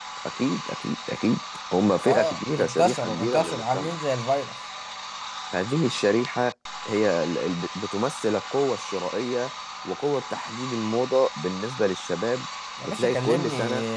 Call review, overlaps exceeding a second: present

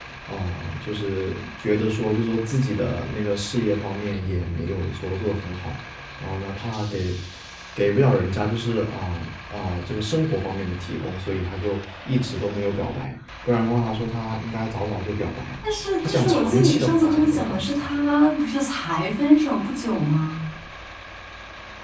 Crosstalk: present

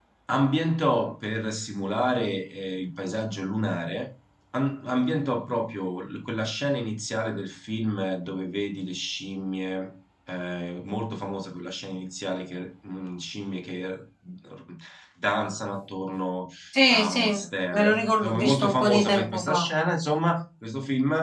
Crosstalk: present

